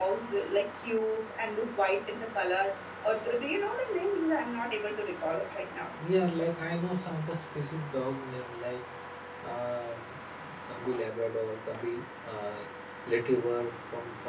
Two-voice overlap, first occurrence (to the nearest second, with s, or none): none